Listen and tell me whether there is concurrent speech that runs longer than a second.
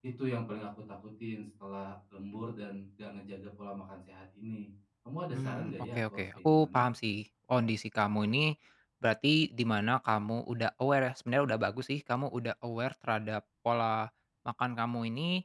Yes, from 5.3 s

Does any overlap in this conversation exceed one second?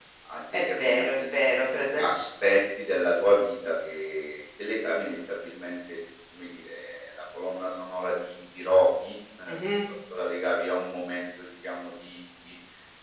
Yes, from 0.5 s

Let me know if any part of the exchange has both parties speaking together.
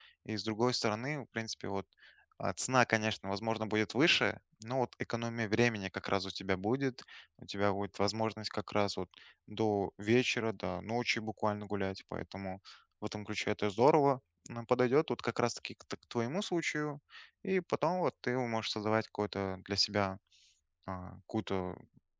No

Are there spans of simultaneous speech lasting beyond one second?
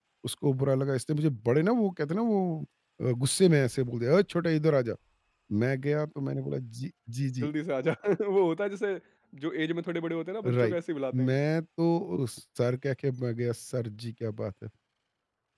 No

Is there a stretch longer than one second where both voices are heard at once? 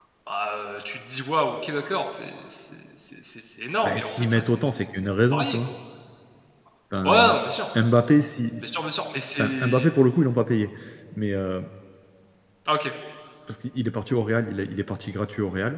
Yes, from 3.8 s

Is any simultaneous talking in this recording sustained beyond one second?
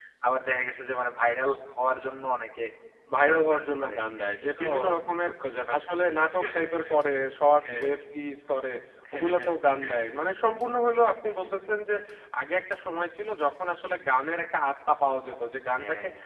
Yes, from 3.2 s

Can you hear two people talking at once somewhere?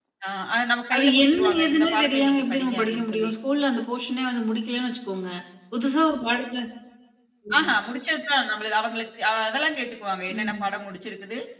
Yes, from 0.9 s

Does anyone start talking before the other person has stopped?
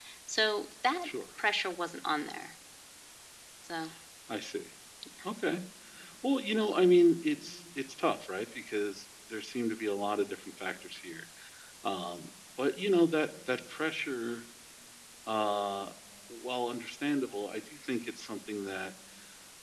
No

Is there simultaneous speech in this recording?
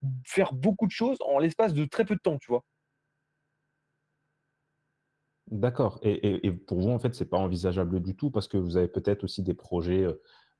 No

